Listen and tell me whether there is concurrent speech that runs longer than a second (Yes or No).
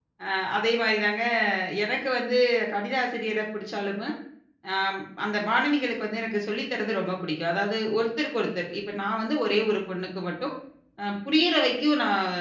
No